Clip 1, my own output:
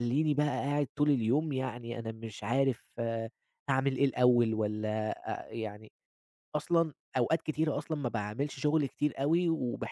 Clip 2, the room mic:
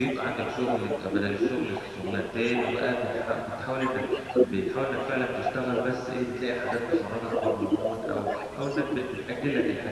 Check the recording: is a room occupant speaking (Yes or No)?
Yes